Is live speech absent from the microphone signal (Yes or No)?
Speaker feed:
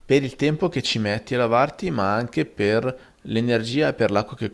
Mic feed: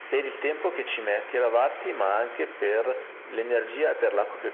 Yes